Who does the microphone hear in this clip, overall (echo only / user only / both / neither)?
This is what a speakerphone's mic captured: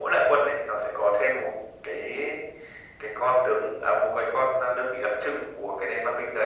echo only